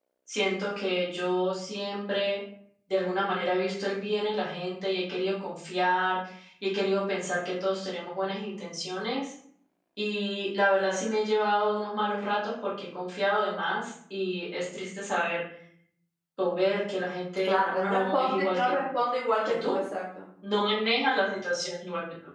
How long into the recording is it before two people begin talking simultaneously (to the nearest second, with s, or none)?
17 s